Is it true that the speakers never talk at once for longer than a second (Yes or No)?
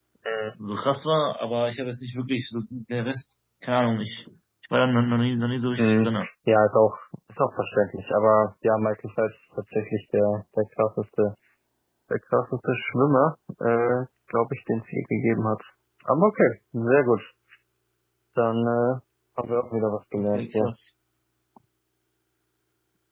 Yes